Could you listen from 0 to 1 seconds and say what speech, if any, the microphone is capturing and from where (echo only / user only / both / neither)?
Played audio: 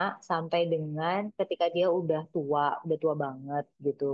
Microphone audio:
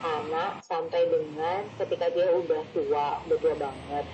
echo only